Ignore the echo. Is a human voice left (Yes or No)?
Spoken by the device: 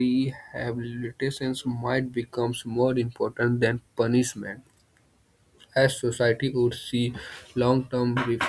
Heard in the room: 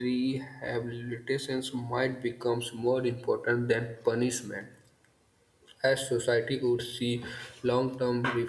No